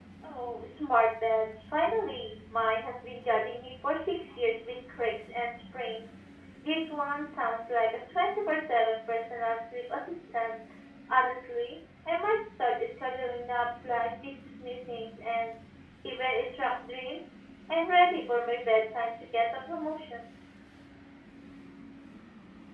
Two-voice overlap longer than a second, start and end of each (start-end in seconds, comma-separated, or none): none